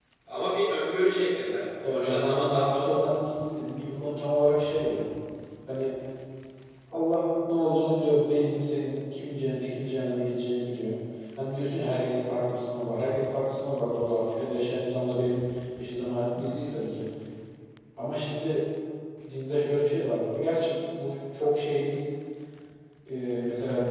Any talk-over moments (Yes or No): Yes